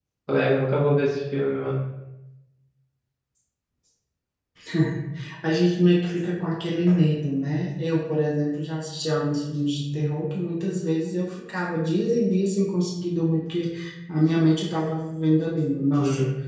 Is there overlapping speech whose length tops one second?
No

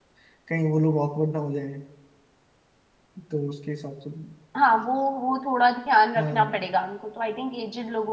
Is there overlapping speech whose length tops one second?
No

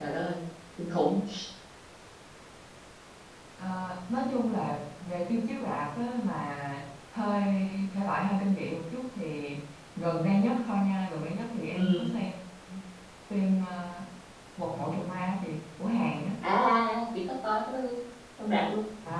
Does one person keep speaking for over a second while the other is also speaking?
No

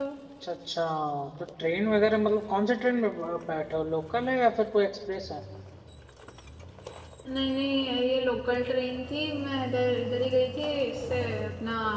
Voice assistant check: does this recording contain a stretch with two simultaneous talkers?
No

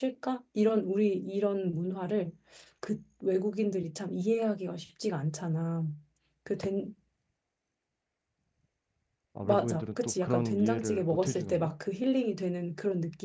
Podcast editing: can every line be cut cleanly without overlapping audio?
No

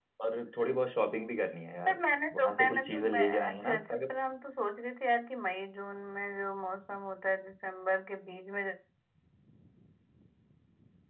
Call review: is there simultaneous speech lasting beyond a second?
Yes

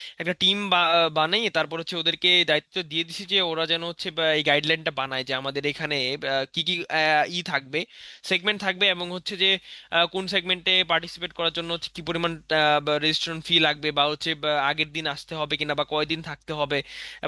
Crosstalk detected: No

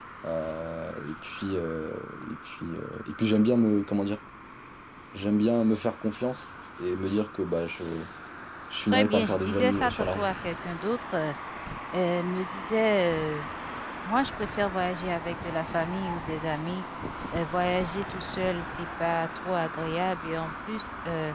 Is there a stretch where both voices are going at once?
Yes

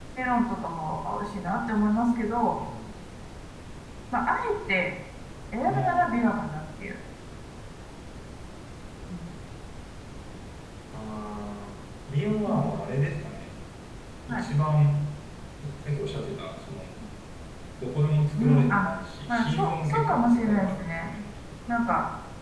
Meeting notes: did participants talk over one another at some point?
Yes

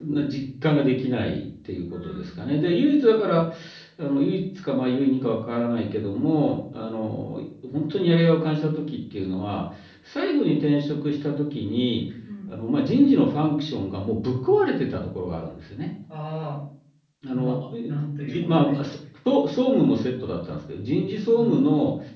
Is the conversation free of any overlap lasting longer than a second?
No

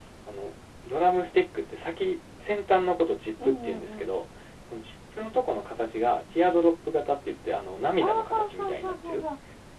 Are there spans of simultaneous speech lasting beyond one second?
Yes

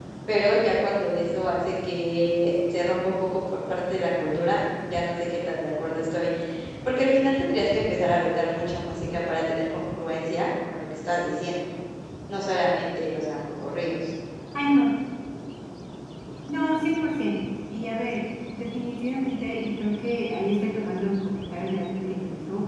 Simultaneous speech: No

